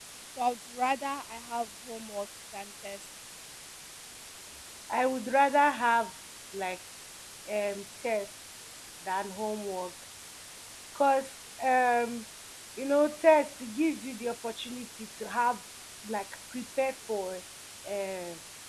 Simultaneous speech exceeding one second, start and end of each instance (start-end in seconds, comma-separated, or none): none